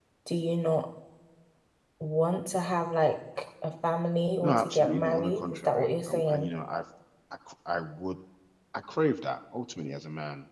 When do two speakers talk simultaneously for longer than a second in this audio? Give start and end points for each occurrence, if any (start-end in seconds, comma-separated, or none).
4.4-6.5